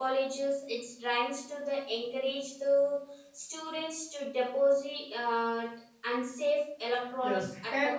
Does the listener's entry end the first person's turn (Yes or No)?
Yes